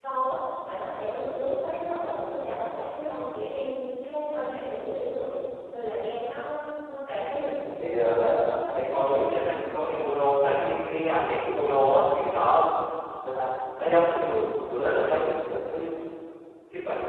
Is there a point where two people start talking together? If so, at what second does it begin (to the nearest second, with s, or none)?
8 s